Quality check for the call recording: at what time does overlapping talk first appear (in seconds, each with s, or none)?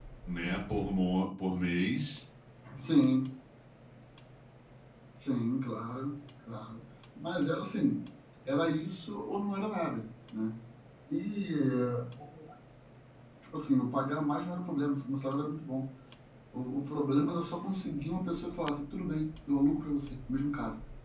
none